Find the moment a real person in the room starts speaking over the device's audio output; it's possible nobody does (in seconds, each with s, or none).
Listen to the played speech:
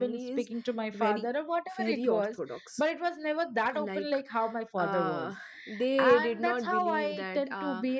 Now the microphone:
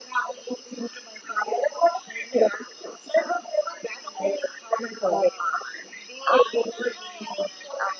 none